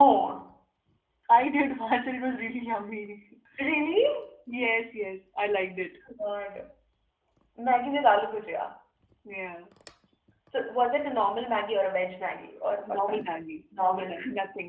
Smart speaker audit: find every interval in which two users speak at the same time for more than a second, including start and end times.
none

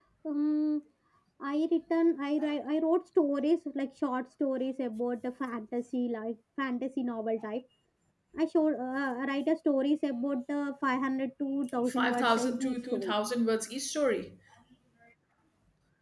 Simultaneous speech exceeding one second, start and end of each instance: 11.9-13.1

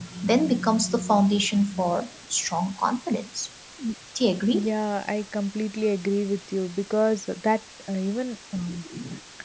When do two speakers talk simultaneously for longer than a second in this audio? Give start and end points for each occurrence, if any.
none

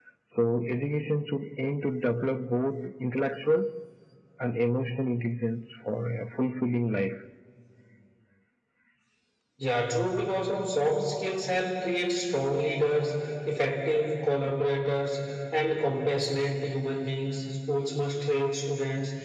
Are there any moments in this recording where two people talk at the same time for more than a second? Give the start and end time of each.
none

